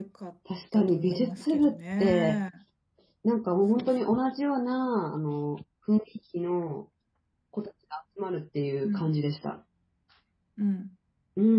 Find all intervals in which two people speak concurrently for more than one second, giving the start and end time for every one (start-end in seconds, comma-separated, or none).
0.7-2.4